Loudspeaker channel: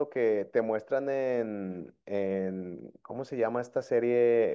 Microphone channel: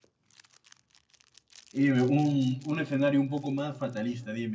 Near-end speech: present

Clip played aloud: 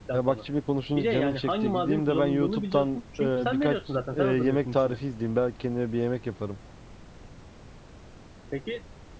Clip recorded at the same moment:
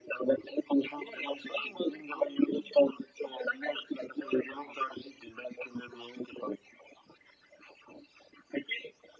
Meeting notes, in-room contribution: none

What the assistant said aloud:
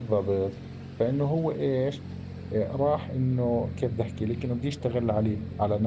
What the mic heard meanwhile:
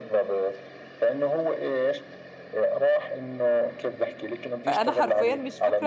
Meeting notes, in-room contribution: present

